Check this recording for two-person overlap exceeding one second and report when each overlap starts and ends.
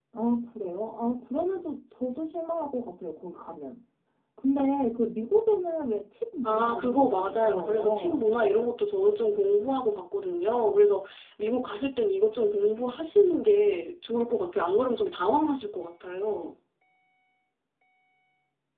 6.4-8.3

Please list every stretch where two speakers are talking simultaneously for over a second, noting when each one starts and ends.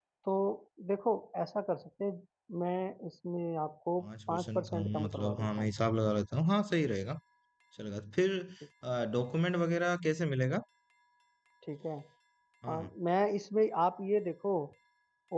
4.0-5.7

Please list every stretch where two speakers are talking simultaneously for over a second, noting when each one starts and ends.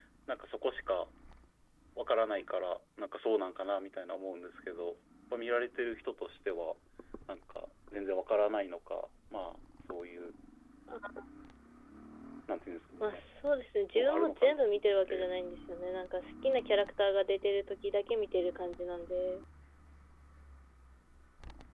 14.0-15.2

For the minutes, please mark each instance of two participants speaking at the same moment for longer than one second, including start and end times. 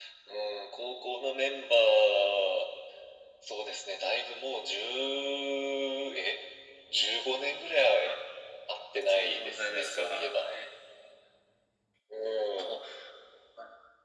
9.1-10.5

